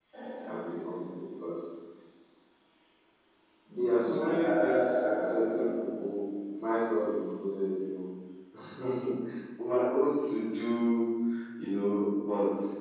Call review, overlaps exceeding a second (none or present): present